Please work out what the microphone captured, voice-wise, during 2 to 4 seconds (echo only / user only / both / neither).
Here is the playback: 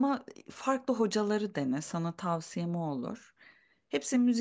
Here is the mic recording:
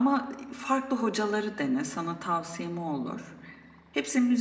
echo only